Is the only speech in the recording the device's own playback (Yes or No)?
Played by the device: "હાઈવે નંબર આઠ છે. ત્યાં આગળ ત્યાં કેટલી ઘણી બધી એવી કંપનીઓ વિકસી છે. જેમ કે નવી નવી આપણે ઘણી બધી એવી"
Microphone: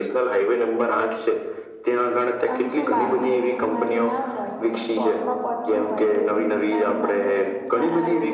No